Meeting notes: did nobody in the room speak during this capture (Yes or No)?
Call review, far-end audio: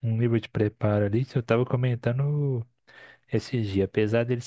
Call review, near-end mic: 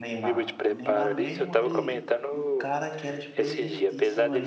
No